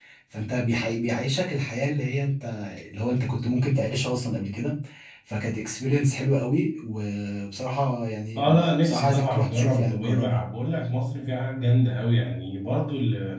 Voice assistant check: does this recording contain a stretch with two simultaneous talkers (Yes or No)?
Yes